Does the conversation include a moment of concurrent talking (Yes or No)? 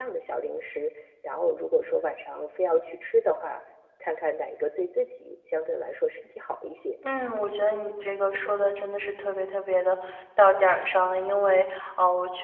No